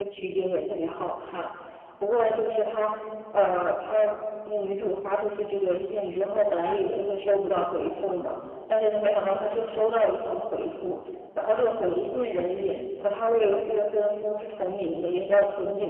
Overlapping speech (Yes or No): No